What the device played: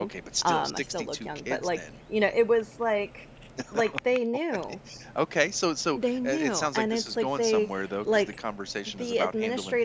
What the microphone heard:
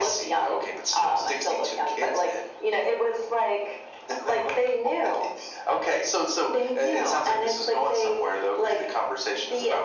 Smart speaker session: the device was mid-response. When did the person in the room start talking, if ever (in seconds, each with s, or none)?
none